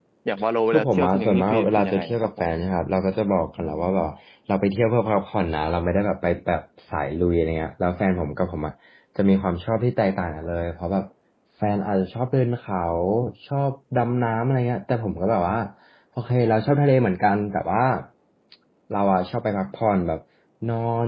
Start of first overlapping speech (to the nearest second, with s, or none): 1 s